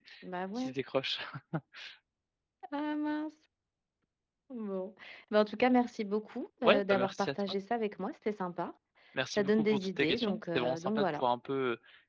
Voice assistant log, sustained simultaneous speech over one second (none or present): present